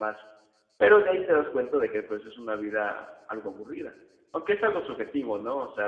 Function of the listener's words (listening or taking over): listening